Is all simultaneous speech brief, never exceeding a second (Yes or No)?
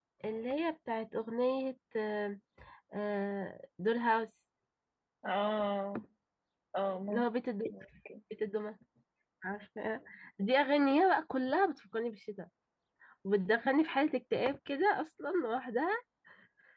Yes